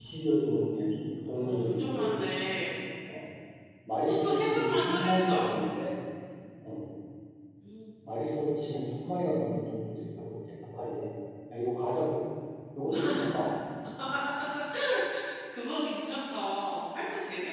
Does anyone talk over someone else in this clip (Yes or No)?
Yes